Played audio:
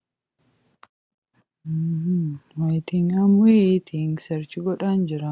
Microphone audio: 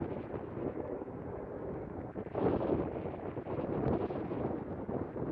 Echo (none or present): none